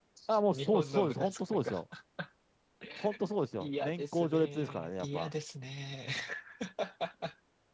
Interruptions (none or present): present